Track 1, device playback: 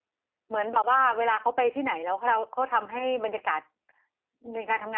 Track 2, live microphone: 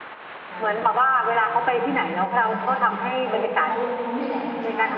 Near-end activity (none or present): present